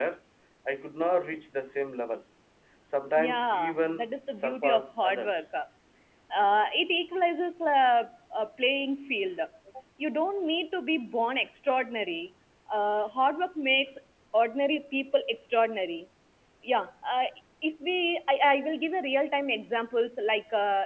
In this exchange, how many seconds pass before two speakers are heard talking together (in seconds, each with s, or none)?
3.2 s